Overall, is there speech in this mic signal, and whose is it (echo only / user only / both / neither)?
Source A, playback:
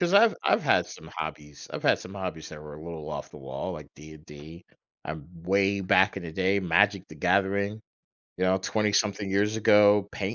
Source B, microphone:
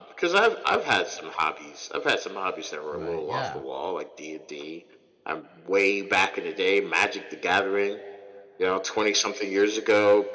both